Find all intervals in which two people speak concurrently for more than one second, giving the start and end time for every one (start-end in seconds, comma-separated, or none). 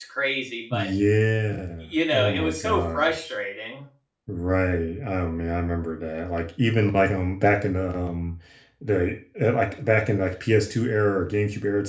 1.8-3.3